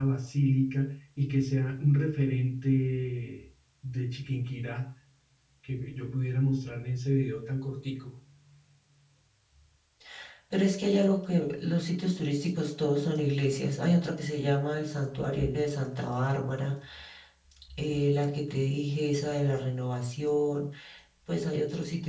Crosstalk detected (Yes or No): No